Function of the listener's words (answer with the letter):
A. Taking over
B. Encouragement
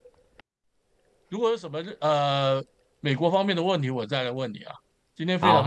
A